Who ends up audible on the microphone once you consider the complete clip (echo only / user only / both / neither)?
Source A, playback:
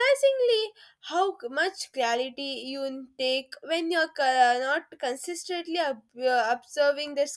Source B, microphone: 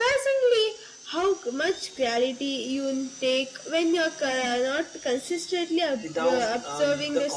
both